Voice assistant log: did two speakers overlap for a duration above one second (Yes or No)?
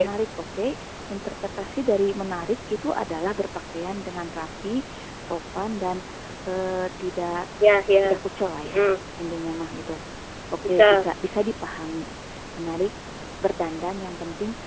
No